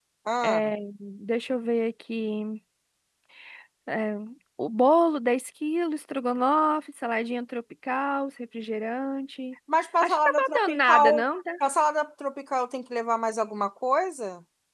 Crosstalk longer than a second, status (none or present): present